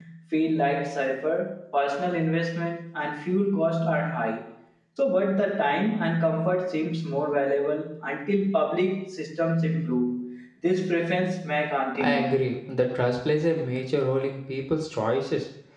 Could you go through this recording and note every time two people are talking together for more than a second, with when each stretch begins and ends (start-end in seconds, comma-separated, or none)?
none